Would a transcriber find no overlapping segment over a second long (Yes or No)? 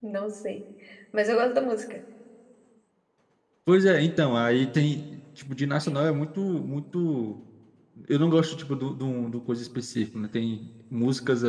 Yes